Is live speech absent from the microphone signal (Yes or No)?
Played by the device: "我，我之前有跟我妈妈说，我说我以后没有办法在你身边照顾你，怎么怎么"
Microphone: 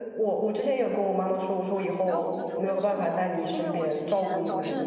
No